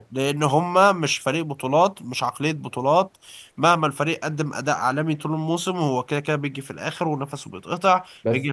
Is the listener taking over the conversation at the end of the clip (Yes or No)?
No